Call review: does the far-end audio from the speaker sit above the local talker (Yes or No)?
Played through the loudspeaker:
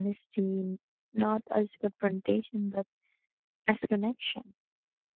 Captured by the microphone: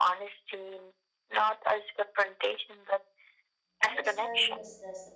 Yes